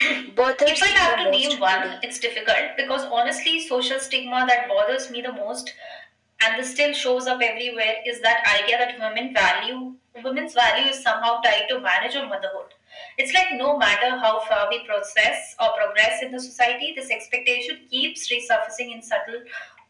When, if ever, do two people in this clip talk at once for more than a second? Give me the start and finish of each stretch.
0.7-2.0

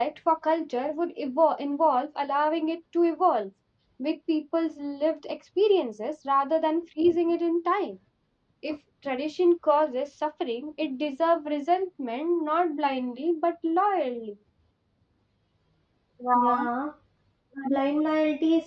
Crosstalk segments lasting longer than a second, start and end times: none

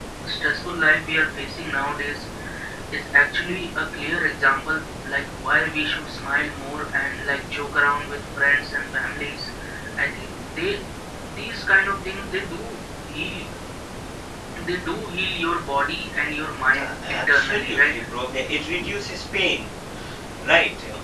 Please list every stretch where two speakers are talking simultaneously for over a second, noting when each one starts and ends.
16.6-17.9

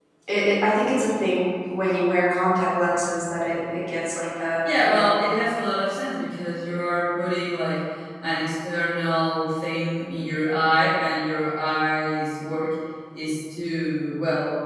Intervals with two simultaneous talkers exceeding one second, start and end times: none

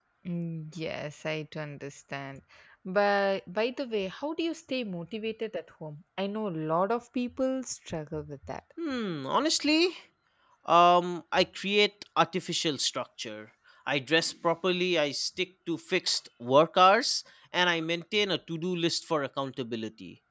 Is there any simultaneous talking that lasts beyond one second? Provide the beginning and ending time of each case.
none

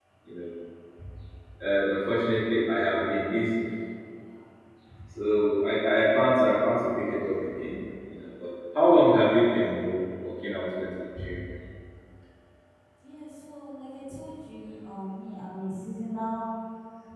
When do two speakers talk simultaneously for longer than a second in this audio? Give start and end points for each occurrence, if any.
none

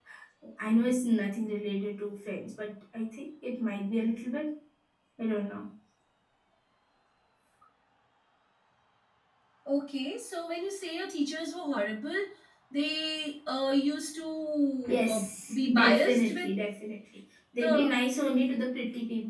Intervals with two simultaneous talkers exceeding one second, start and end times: 14.9-16.5

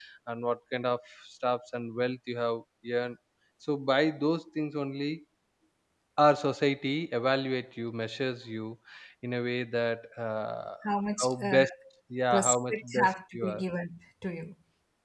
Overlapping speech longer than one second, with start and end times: 12.3-13.6

